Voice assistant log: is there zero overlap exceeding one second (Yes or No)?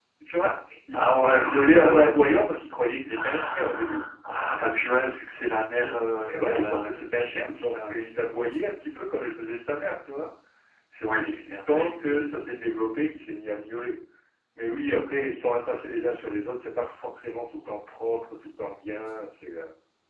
No